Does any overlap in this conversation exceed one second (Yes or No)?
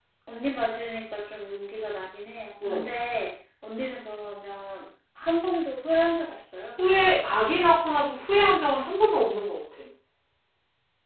No